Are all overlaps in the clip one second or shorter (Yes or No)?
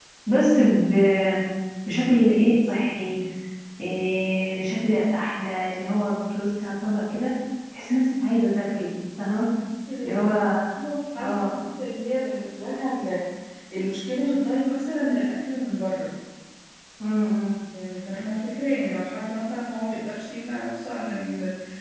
Yes